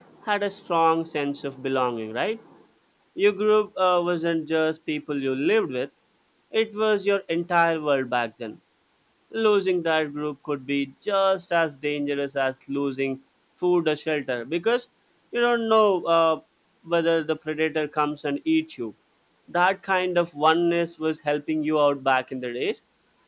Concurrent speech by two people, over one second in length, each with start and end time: none

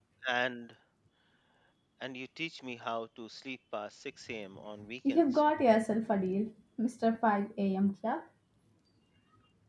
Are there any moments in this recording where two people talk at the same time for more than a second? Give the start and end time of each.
none

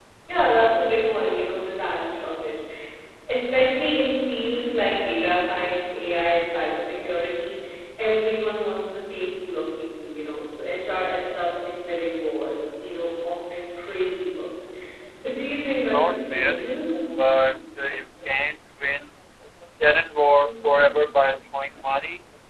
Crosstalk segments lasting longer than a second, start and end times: 15.6-17.0

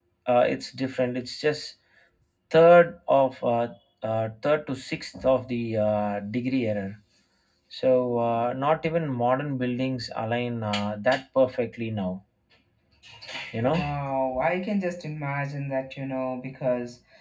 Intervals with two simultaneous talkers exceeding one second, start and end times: none

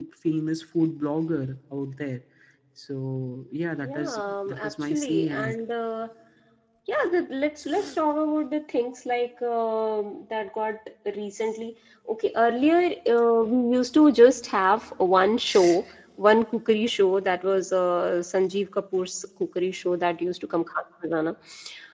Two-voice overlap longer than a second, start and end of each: 3.8-5.6

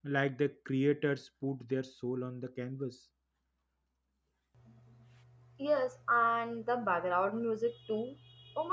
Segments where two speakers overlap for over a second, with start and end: none

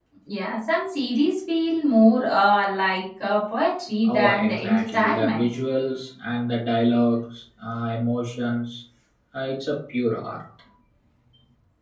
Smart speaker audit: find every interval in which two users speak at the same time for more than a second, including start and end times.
4.0-5.5

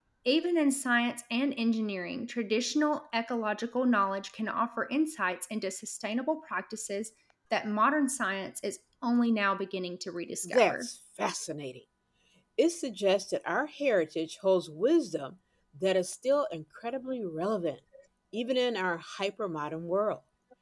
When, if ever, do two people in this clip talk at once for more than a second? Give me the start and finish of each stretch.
none

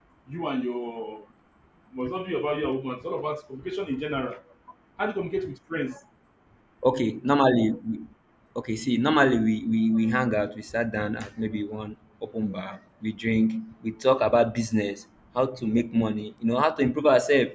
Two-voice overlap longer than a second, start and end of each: none

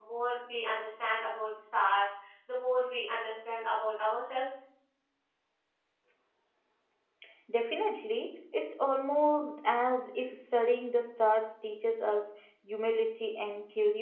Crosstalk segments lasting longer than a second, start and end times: none

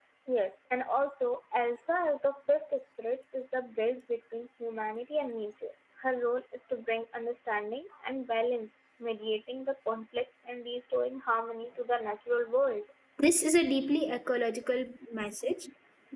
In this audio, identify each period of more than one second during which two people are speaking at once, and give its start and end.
none

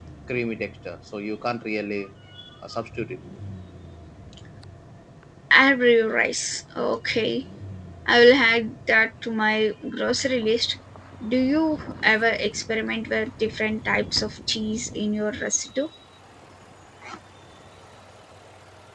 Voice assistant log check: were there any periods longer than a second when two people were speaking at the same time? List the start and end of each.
none

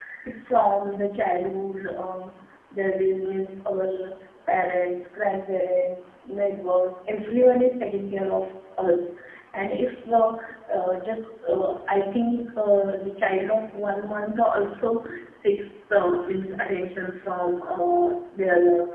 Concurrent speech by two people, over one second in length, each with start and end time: none

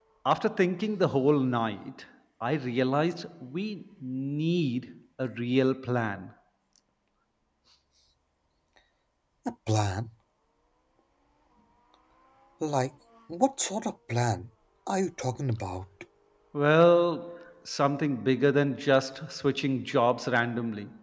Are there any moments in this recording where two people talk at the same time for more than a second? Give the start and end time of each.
none

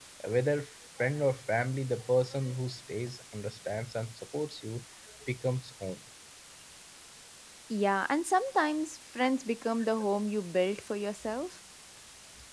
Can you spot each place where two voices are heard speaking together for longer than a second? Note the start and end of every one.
none

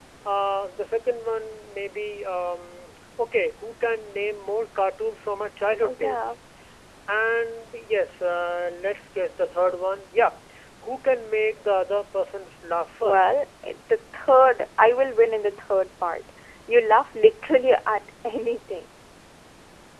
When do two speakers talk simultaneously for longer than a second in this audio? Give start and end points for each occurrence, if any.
none

